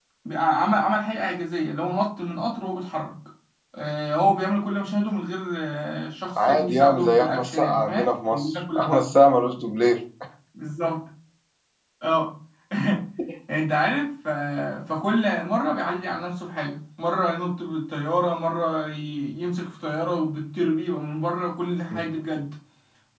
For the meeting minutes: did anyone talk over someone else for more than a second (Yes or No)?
Yes